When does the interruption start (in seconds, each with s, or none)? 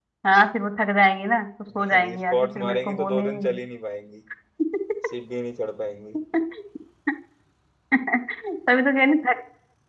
1.7 s